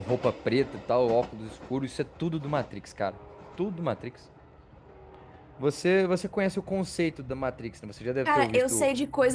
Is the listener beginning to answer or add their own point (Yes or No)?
Yes